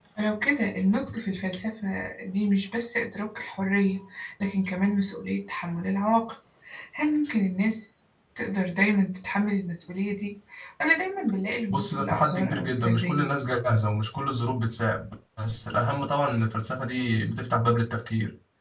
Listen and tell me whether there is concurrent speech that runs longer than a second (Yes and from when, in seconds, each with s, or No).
Yes, from 11.7 s